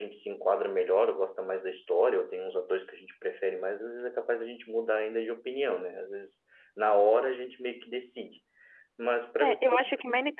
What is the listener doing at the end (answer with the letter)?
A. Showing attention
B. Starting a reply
B